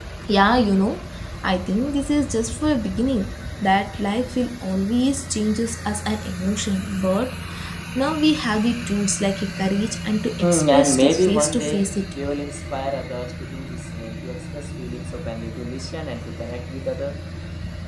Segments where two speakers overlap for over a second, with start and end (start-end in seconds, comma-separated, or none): 10.4-11.9